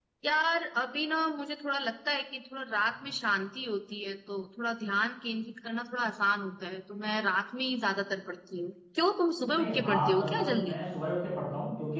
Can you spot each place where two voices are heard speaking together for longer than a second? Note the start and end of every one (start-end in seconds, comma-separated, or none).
9.5-10.7